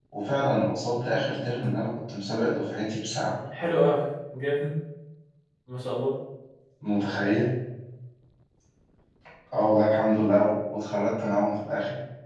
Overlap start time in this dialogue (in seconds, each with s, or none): none